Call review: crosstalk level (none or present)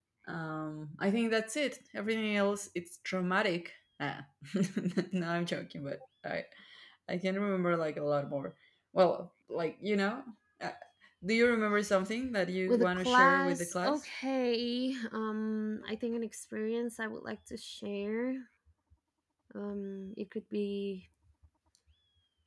present